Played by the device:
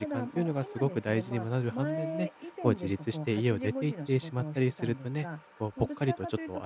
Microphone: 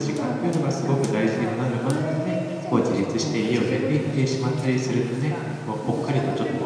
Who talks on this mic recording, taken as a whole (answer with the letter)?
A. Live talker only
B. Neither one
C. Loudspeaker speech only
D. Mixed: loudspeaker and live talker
D